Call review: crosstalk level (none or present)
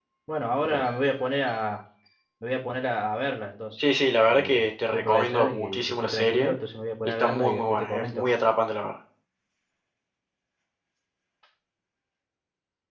present